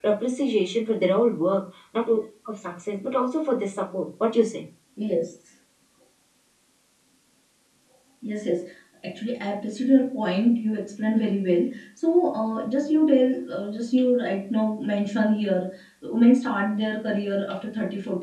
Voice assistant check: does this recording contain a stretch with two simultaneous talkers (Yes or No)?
No